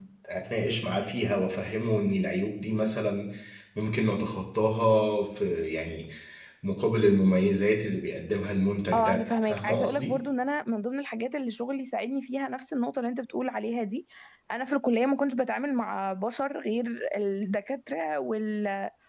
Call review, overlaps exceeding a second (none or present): present